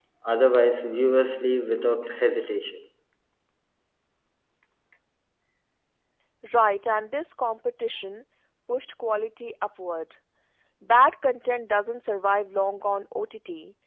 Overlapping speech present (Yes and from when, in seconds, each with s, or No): No